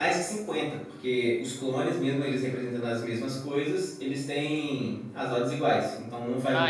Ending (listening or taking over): taking over